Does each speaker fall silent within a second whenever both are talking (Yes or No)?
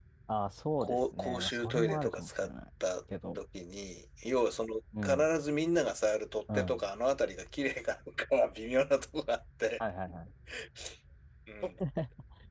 No